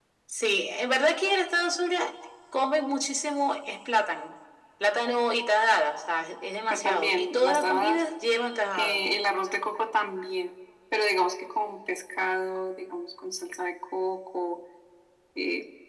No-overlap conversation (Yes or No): No